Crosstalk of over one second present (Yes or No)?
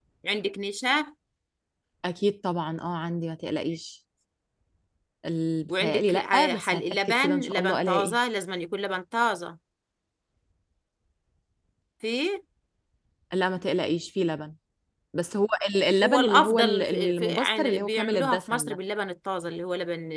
Yes